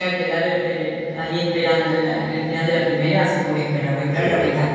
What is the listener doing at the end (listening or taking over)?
listening